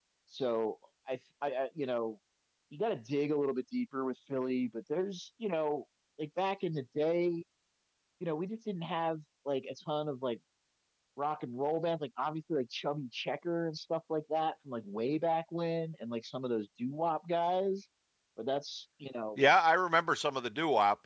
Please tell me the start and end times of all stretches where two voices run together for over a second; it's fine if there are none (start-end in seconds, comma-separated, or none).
none